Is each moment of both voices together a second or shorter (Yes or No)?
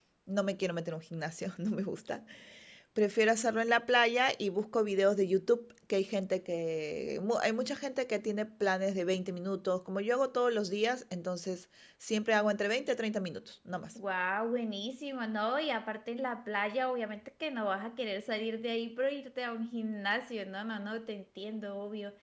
Yes